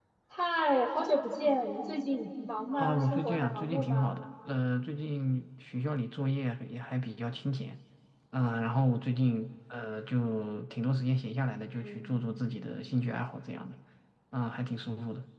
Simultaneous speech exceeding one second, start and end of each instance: 2.8-4.1

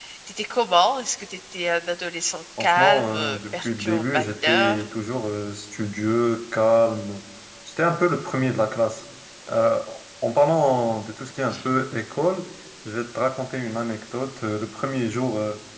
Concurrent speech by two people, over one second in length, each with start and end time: 2.6-4.8

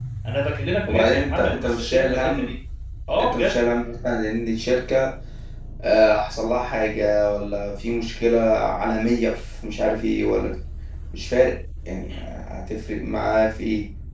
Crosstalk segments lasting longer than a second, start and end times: 0.9-2.5

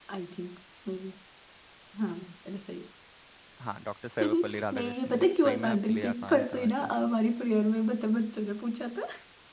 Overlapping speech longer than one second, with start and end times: 4.2-6.8

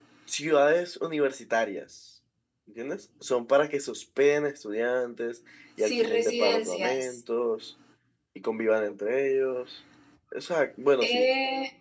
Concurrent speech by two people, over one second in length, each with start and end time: 5.8-7.2

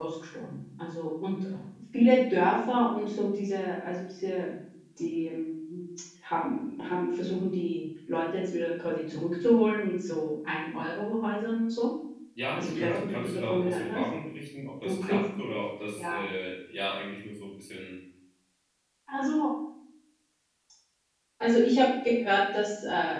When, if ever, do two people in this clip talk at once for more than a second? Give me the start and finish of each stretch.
12.5-14.0

